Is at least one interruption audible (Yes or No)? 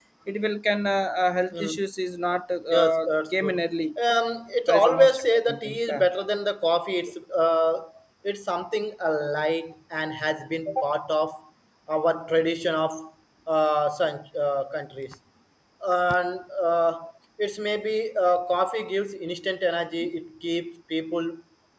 Yes